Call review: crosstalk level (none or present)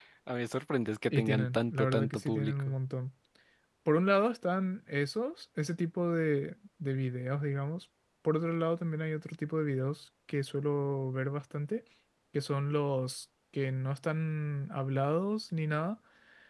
present